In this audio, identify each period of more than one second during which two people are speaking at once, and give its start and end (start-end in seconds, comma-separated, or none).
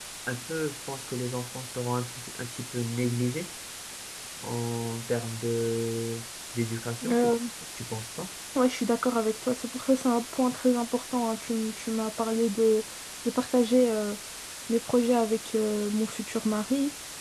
none